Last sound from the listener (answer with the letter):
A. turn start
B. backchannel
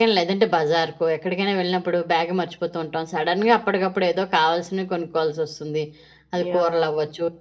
B